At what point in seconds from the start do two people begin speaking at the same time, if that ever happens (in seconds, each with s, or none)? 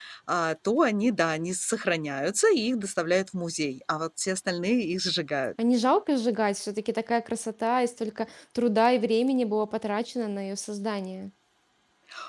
none